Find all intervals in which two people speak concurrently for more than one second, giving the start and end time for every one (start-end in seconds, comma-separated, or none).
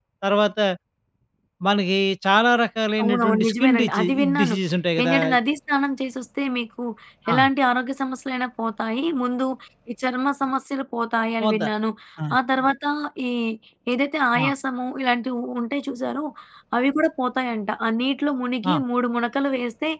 3.0-4.6